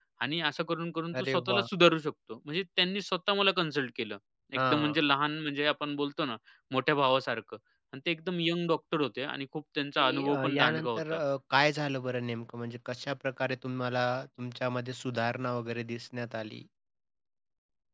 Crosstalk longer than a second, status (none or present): present